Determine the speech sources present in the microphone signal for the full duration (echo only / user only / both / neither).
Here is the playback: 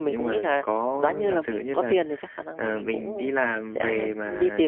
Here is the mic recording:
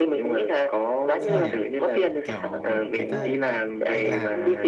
both